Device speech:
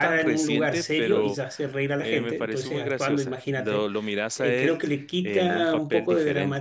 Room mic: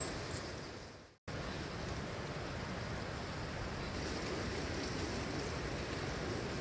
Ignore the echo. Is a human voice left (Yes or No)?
No